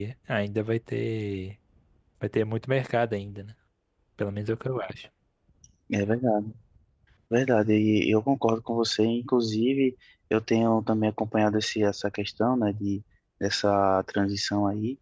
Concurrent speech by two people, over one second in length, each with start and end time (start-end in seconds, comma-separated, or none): none